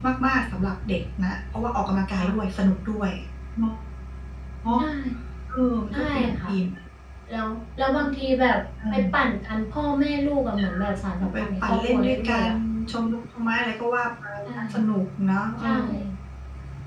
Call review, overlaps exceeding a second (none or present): present